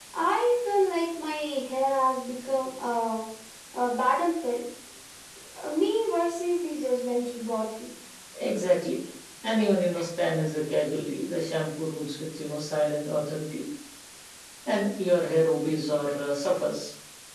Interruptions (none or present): none